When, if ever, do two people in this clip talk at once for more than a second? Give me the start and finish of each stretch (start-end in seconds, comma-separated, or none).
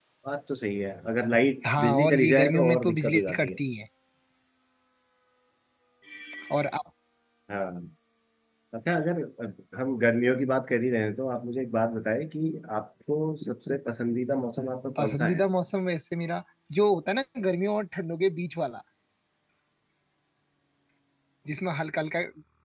1.8-3.5